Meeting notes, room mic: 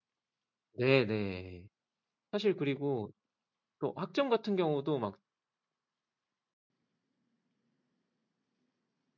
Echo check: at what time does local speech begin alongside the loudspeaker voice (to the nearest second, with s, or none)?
1 s